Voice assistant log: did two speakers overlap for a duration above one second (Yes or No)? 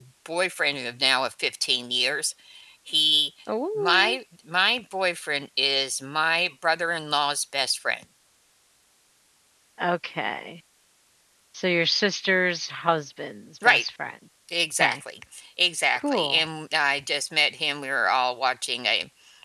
No